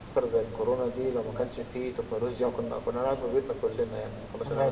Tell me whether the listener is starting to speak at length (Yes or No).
Yes